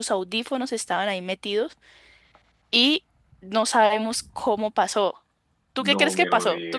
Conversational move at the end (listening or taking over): taking over